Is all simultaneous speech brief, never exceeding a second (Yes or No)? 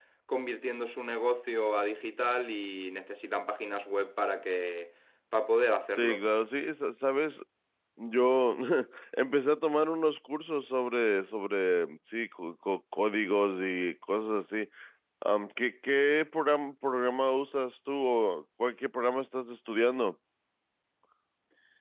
Yes